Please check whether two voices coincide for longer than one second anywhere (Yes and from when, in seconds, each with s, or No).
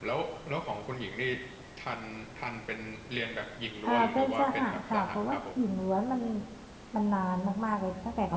Yes, from 3.8 s